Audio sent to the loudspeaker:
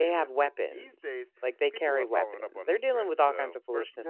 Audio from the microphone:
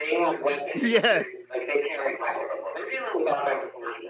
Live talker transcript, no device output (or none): Yes,